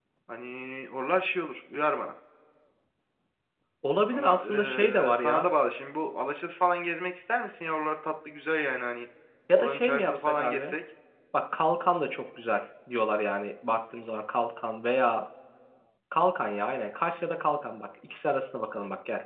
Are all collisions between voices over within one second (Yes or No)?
No